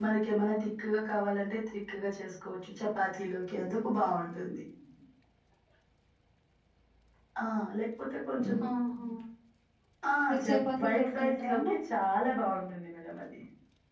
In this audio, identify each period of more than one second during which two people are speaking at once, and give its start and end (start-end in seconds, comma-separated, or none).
10.3-11.7